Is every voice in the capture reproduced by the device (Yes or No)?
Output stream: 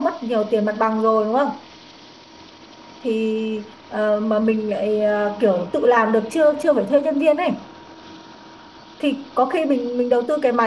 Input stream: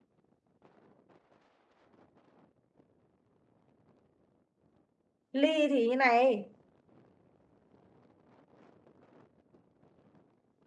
No